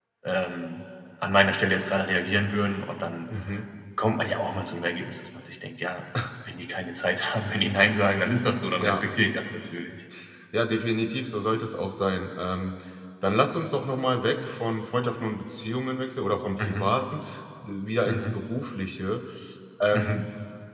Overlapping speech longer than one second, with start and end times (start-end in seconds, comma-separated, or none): none